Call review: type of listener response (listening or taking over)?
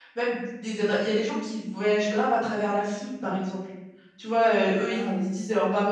listening